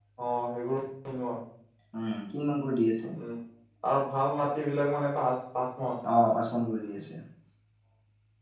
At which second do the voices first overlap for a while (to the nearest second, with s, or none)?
none